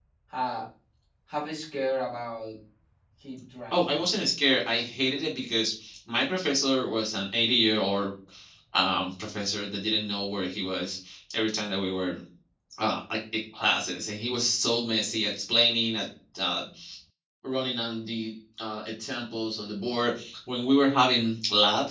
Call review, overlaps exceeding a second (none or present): none